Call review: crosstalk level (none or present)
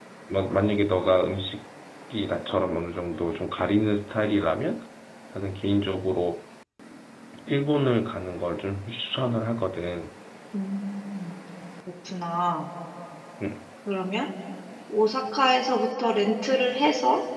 none